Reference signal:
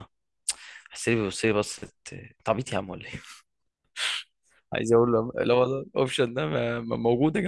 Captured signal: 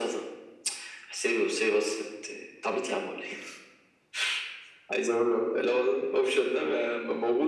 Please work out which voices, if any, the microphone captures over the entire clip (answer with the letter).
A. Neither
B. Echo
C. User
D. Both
B